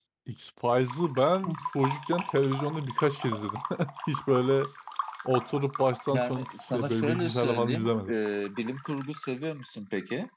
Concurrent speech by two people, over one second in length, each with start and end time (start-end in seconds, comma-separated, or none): 6.1-8.1